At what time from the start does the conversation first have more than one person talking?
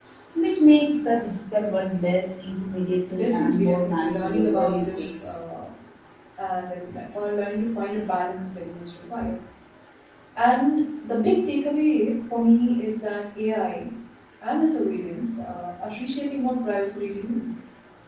3.1 s

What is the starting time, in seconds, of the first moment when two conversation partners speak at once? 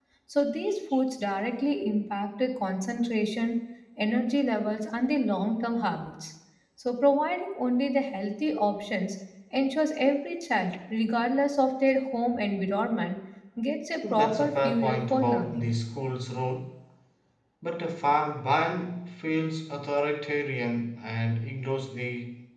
14.1 s

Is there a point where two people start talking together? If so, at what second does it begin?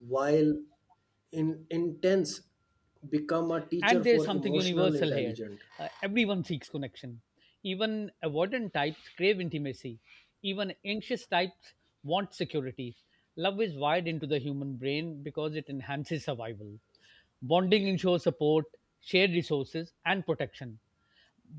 3.8 s

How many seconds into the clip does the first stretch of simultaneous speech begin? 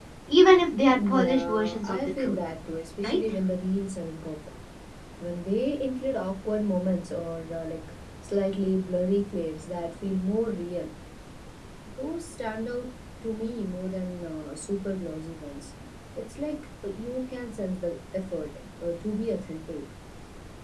1.1 s

